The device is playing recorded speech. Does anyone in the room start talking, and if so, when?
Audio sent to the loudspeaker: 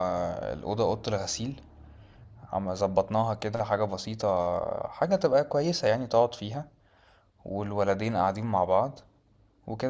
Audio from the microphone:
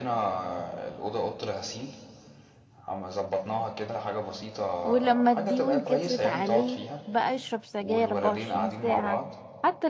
5 s

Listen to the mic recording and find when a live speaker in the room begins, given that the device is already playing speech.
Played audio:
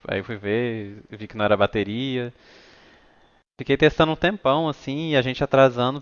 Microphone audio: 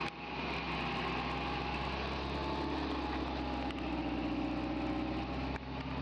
none

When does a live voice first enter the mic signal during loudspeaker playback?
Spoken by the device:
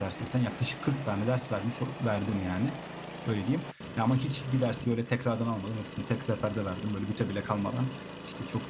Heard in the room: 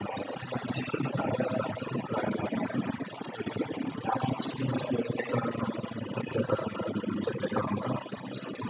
none

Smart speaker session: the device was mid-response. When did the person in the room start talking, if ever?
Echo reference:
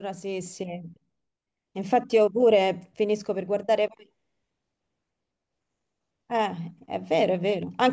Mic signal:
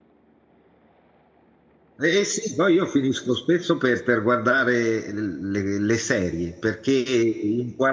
2 s

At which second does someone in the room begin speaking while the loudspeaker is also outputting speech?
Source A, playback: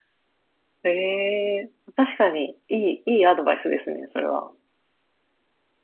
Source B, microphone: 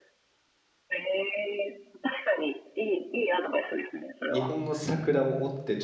4 s

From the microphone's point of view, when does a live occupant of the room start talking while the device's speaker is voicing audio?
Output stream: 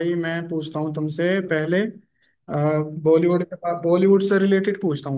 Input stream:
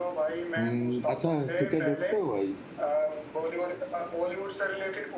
1 s

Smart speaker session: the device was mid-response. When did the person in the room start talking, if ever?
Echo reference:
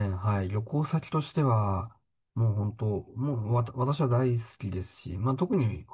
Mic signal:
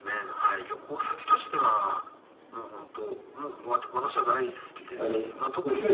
5 s

